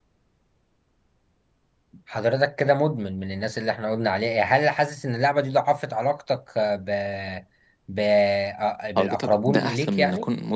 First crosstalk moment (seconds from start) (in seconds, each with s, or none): 9.0 s